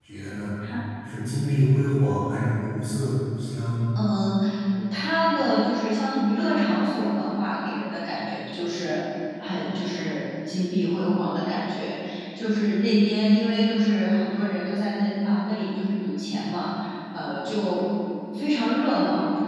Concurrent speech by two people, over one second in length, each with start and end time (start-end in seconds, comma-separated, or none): none